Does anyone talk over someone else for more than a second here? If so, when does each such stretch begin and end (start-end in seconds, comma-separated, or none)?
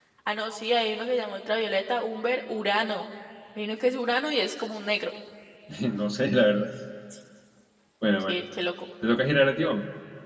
none